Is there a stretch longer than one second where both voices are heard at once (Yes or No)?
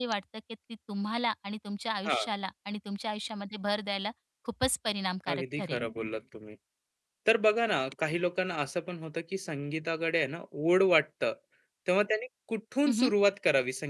No